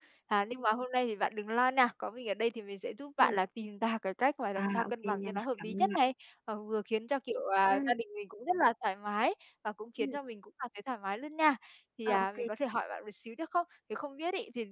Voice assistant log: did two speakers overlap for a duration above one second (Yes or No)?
Yes